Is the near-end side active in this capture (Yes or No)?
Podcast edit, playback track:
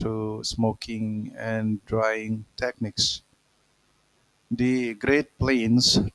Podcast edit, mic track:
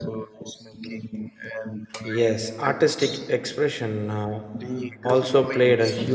Yes